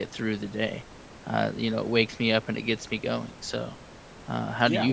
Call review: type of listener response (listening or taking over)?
taking over